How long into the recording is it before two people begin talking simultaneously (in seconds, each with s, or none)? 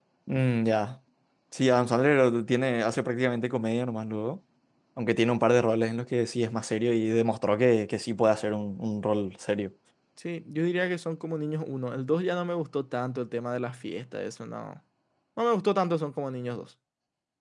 none